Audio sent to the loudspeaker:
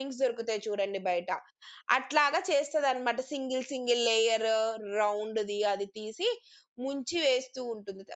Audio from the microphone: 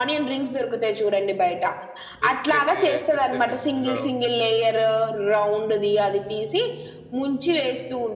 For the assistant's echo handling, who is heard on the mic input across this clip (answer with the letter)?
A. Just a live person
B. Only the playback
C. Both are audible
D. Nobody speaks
C